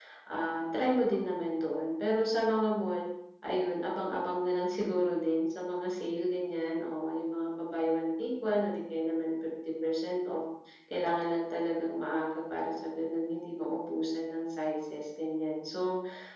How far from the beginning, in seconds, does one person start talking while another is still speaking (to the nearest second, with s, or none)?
none